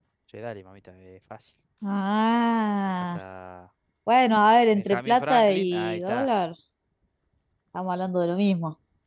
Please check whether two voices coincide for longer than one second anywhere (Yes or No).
Yes